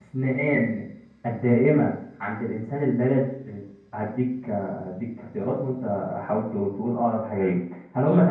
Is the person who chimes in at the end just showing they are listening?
Yes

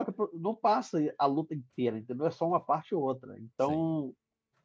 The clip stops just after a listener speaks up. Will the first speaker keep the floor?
Yes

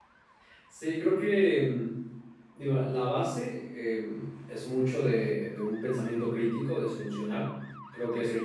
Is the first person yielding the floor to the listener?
No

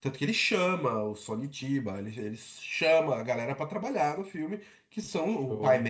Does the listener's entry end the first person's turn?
No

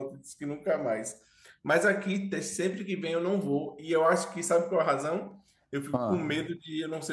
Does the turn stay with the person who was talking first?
Yes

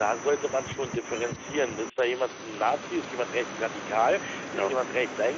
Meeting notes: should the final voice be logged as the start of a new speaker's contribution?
No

